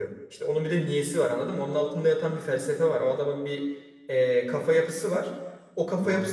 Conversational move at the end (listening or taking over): listening